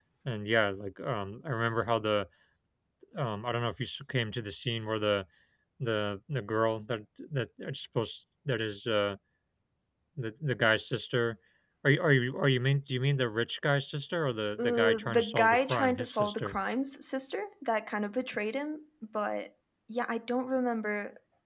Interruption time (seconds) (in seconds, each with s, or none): 14.6 s